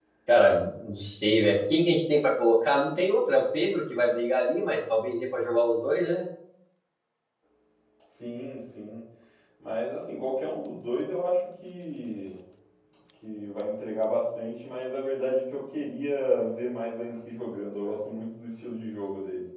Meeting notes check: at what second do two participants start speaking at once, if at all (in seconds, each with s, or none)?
none